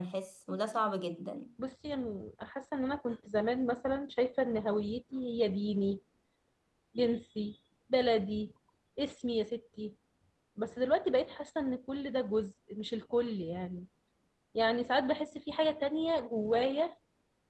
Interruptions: none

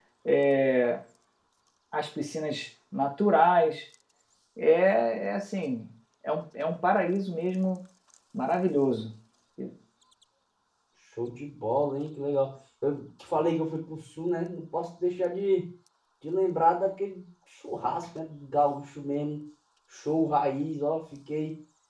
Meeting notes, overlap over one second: none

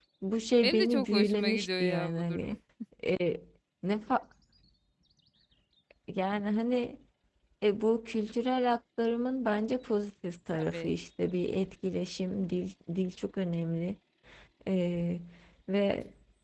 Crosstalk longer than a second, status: present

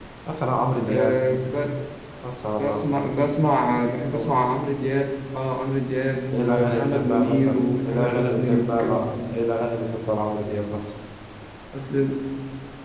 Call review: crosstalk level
present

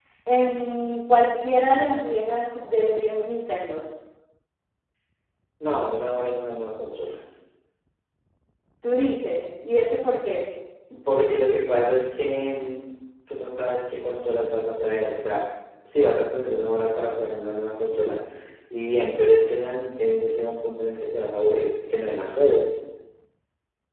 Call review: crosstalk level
none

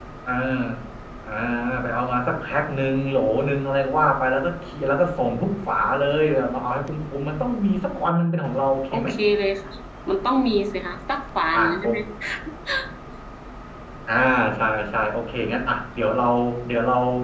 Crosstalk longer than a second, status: none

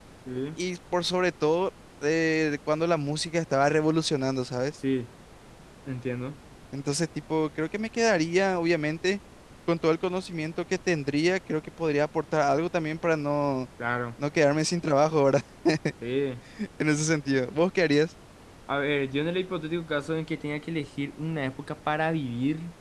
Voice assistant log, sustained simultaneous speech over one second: none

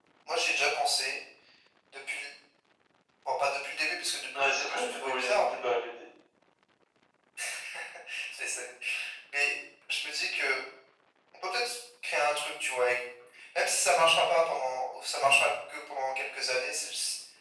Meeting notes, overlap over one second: present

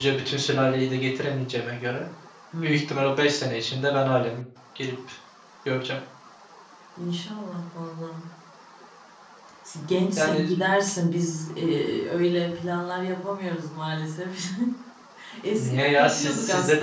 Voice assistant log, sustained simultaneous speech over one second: present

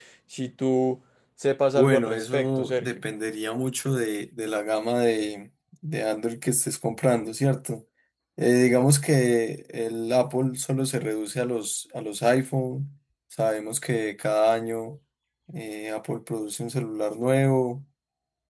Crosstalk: present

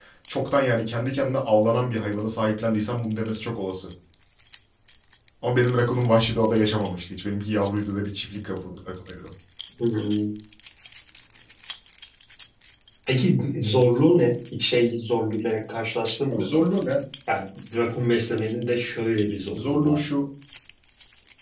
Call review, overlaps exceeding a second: none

